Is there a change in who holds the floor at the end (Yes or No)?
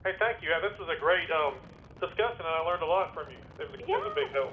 Yes